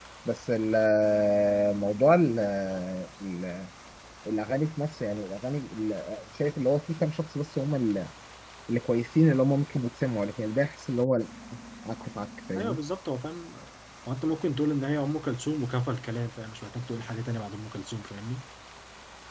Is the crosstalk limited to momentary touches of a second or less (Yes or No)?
Yes